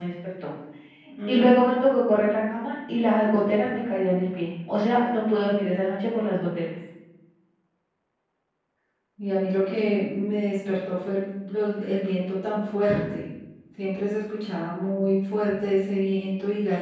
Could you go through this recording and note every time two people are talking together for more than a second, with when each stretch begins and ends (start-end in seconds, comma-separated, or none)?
none